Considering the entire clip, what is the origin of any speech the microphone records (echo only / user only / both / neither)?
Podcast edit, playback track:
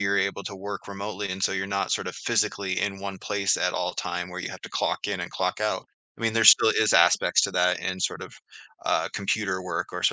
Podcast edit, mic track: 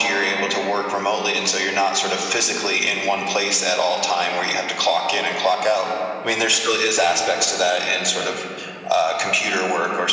echo only